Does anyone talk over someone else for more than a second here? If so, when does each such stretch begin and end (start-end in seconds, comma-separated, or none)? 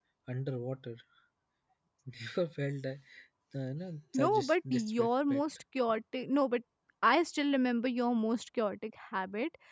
4.1-5.4